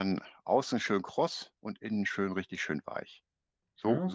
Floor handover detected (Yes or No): Yes